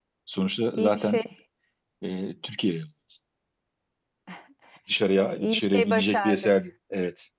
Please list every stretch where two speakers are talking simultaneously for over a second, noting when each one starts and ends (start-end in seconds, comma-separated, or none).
5.2-6.5